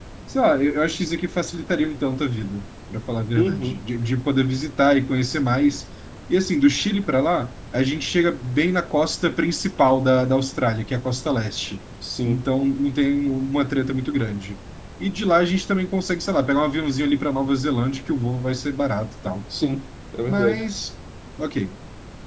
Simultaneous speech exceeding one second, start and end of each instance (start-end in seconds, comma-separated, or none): none